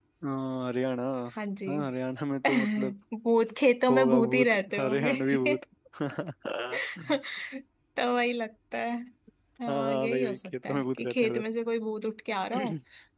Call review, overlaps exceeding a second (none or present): present